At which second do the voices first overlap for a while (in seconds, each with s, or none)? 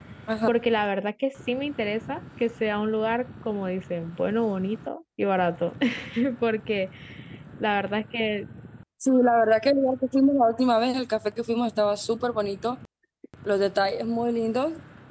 none